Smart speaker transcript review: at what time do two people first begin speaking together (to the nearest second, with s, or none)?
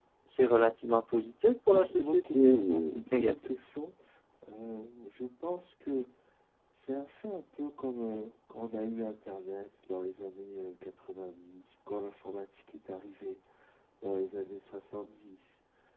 2 s